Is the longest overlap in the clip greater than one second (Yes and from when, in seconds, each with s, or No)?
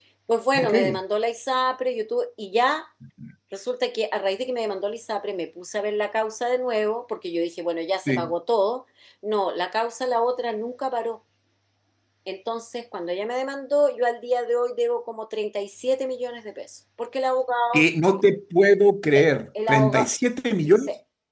No